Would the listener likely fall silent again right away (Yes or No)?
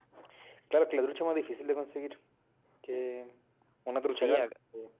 No